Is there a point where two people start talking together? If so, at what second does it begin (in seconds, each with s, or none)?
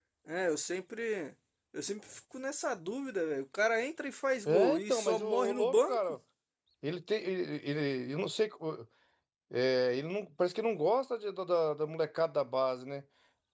4.5 s